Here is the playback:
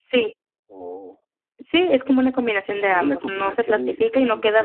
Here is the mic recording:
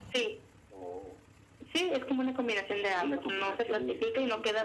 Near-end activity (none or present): none